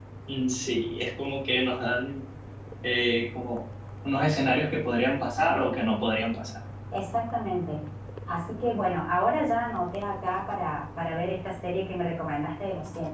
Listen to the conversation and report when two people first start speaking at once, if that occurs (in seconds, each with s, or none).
none